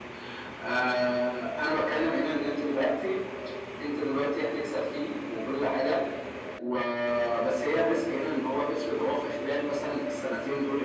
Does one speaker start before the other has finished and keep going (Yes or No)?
No